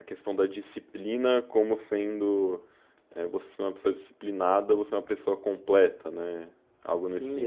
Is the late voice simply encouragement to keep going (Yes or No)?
No